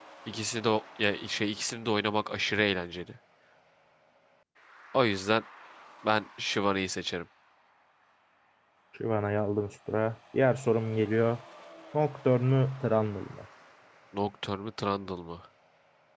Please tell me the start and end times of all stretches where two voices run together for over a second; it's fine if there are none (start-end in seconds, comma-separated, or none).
none